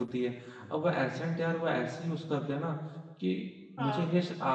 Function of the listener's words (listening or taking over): listening